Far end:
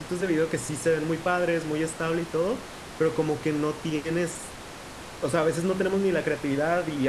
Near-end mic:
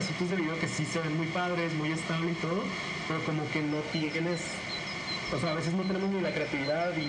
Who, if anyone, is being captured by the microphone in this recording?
echo only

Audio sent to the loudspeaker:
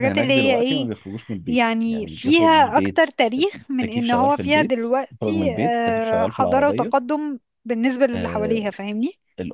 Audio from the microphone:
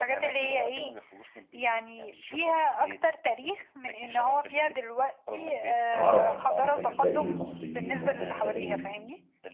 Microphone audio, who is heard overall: both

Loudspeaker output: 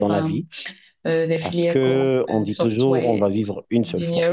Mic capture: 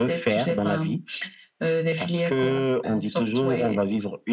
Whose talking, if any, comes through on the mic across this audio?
echo only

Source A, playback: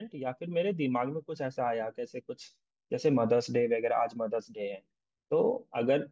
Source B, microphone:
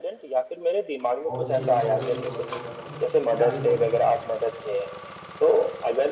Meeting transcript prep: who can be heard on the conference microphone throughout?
both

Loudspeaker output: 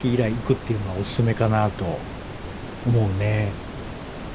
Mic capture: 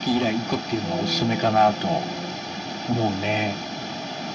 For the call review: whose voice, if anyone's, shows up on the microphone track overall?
both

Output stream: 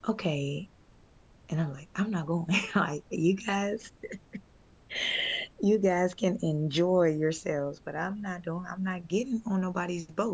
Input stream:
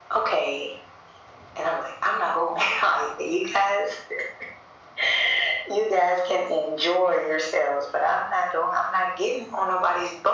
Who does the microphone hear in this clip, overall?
echo only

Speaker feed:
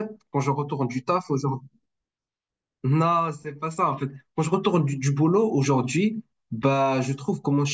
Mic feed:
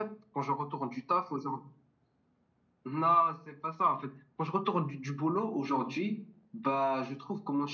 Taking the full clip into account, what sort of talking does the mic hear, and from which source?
echo only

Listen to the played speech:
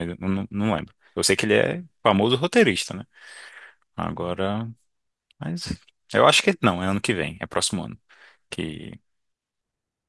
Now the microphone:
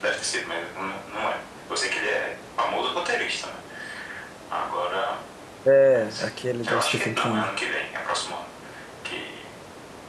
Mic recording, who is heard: both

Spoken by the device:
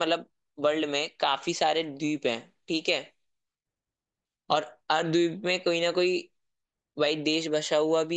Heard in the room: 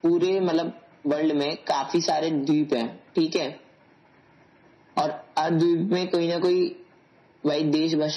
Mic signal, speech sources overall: echo only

